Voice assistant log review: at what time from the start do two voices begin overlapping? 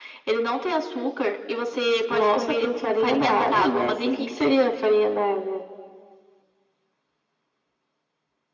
2 s

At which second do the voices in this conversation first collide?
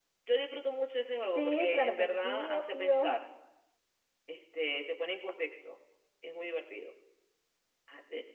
1 s

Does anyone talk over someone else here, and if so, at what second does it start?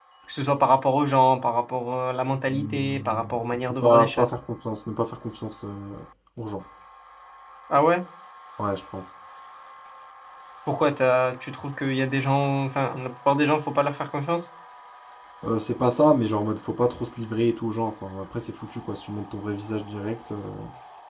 2 s

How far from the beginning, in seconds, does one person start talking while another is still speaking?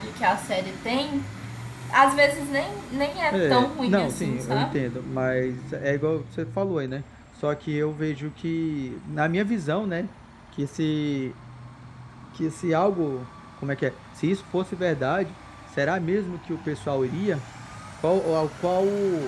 3 s

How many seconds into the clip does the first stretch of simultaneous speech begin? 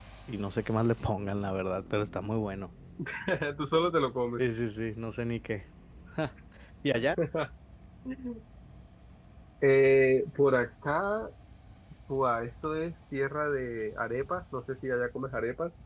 none

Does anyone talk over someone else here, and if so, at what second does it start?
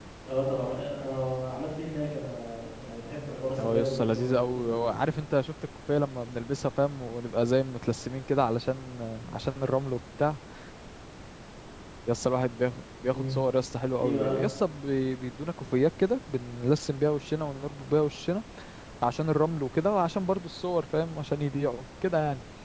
4 s

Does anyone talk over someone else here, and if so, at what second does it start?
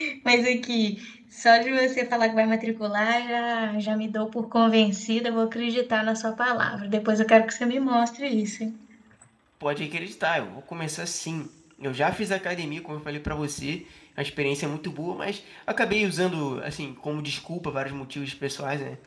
none

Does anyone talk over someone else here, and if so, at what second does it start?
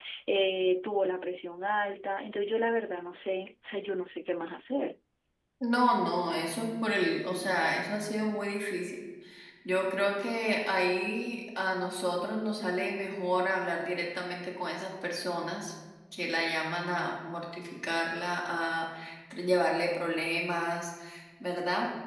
none

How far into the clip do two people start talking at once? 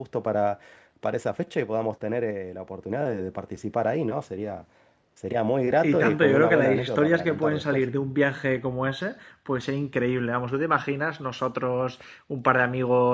6 s

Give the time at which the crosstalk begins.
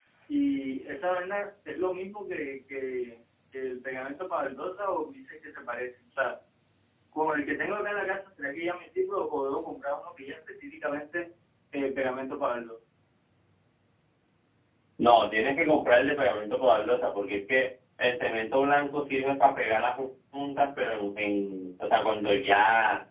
none

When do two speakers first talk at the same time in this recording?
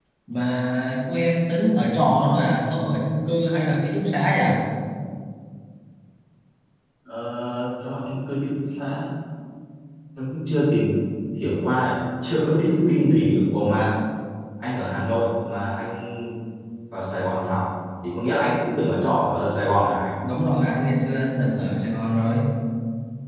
none

